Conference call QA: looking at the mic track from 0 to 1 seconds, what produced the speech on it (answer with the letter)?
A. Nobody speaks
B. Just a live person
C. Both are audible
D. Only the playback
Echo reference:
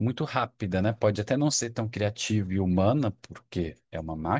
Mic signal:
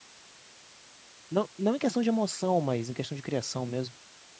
A